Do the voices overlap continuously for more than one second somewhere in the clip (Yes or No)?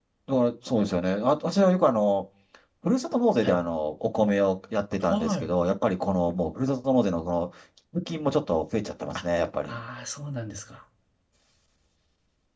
No